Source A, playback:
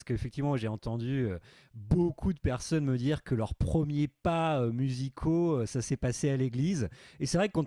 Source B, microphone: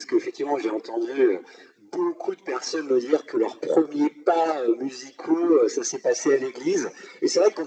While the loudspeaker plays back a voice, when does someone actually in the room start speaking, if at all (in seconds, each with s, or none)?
none